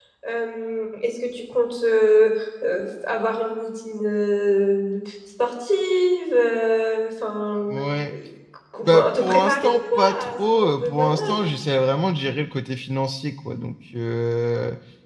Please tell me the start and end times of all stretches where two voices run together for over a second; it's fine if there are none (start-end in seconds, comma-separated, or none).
8.8-11.5